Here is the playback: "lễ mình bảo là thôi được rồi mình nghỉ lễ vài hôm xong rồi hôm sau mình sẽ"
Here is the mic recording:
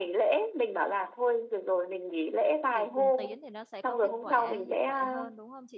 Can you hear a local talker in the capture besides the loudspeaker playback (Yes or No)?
Yes